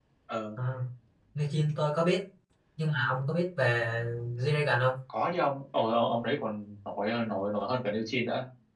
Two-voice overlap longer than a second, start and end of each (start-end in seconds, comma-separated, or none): none